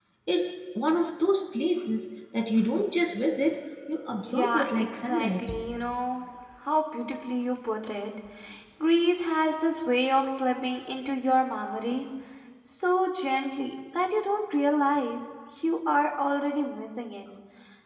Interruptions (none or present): present